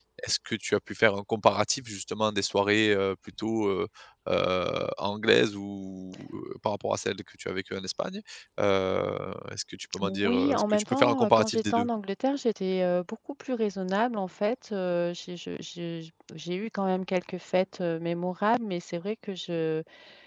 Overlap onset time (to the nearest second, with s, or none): 10 s